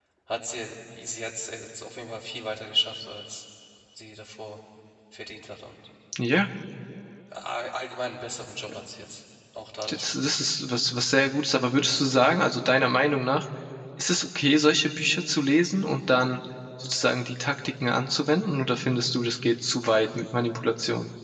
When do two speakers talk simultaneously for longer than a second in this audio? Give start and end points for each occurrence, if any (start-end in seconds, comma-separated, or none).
none